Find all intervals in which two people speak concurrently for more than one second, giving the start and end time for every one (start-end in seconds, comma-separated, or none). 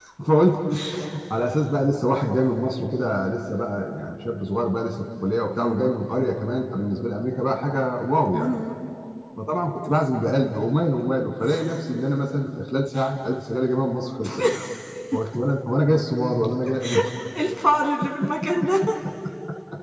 none